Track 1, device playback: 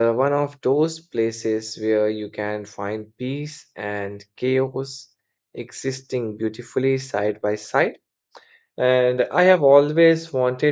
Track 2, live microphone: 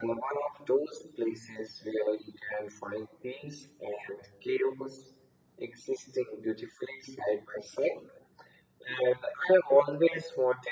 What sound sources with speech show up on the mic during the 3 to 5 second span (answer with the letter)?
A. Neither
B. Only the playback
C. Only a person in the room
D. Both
B